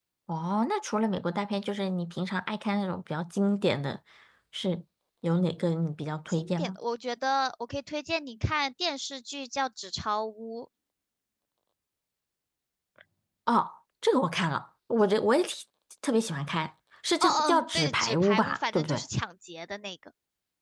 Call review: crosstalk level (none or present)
present